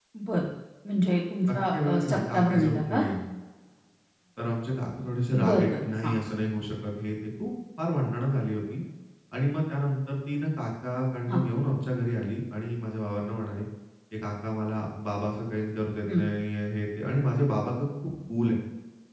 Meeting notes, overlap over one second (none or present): present